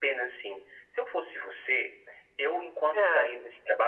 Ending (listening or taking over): listening